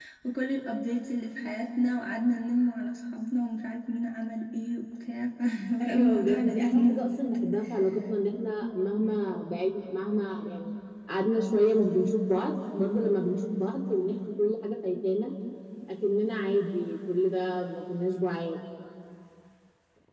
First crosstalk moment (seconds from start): 5.8 s

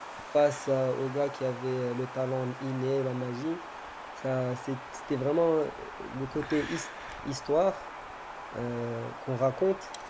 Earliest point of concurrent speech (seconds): none

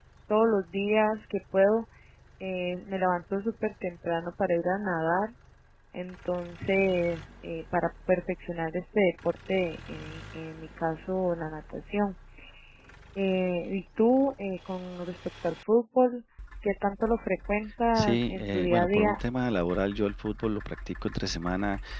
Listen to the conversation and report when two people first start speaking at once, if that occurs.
17.9 s

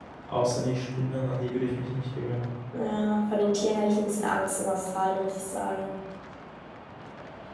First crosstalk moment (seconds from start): none

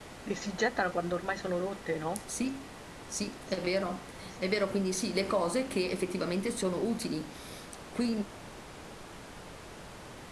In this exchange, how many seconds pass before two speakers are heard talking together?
none

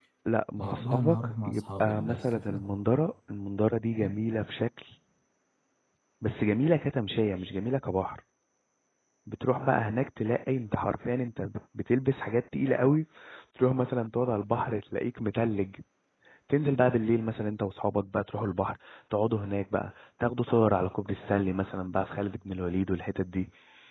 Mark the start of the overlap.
0.6 s

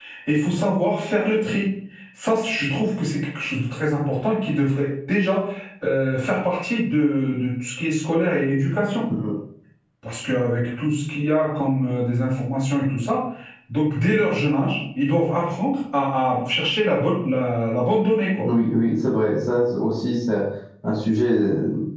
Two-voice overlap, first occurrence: none

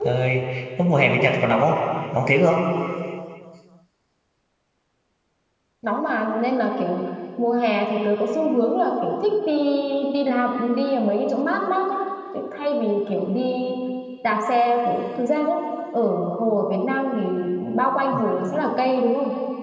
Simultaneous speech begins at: none

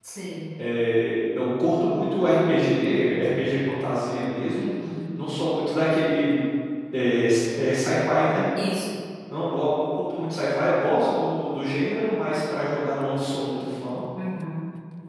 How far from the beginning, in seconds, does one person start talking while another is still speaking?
none

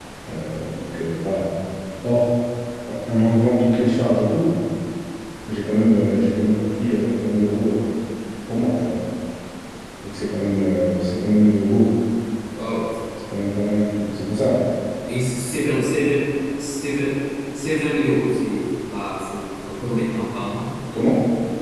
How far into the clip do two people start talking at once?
none

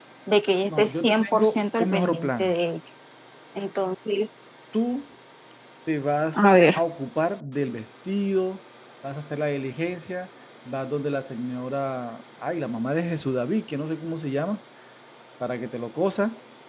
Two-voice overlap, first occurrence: 0.6 s

